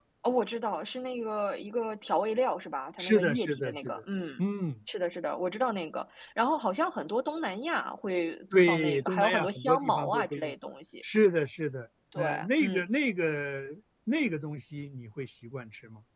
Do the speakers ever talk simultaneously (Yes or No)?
Yes